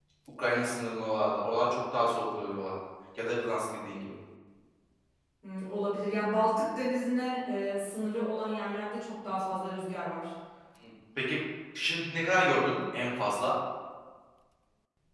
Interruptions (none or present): none